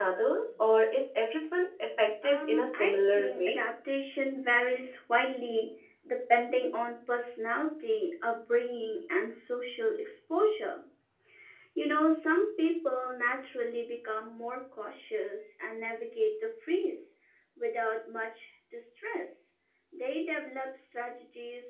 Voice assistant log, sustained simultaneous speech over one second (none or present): present